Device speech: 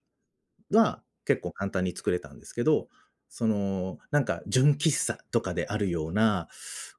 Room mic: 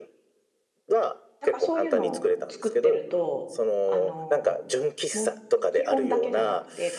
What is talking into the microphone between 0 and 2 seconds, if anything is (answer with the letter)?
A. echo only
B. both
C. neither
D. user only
B